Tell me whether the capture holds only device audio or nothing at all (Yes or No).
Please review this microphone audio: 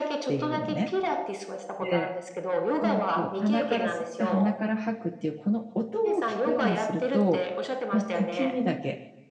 No